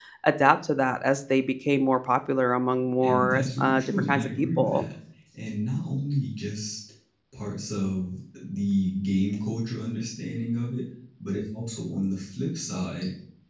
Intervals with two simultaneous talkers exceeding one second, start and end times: 3.0-4.8

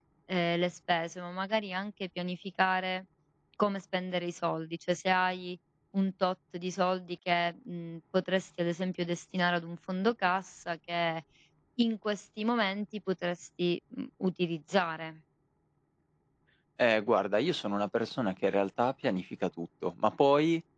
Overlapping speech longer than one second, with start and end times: none

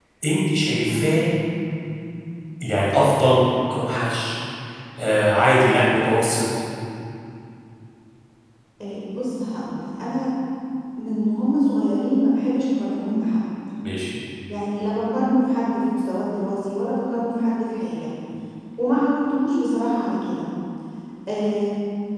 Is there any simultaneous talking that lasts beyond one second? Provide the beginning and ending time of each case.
none

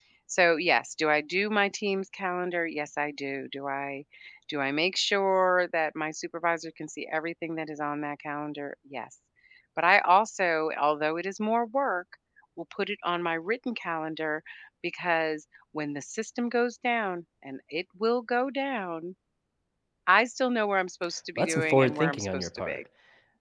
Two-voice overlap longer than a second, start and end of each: 21.4-22.8

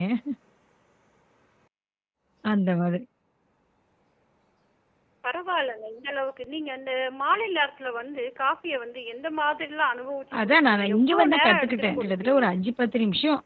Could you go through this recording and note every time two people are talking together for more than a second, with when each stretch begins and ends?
10.4-12.4

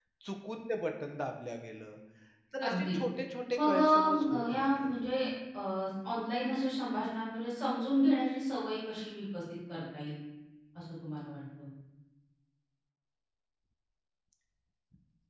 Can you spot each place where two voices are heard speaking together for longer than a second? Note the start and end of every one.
3.5-4.9

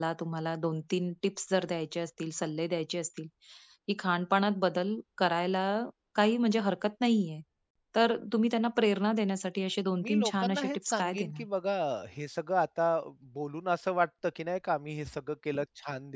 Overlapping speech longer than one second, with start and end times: 10.0-11.4

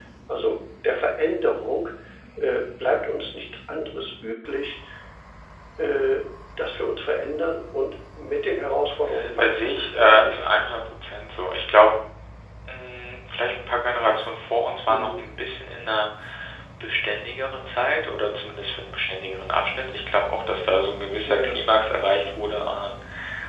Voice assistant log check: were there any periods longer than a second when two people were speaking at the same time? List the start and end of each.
9.4-10.7

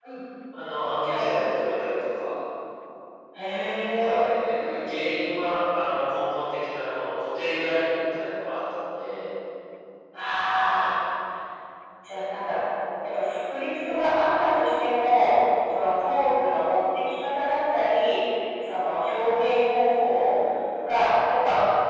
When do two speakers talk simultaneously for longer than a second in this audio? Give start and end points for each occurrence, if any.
none

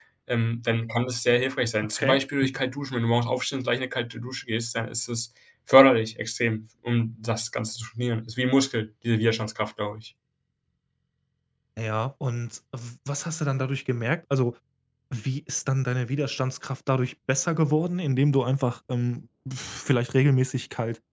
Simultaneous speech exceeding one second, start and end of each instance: none

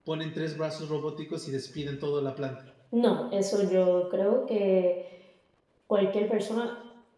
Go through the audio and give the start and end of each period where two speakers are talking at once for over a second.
none

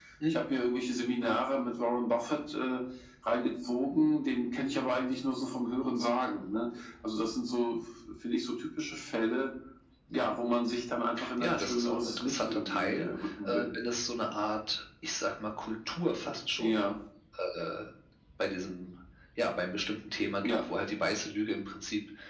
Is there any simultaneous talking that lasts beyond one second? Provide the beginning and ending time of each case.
11.4-13.1

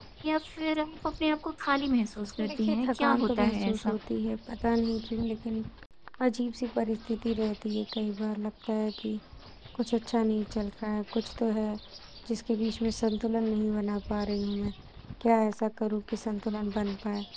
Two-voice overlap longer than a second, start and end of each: 2.5-3.9

